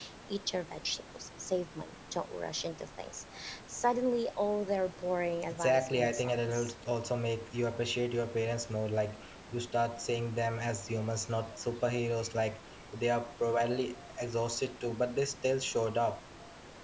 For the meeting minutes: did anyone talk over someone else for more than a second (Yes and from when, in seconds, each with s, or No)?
Yes, from 5.5 s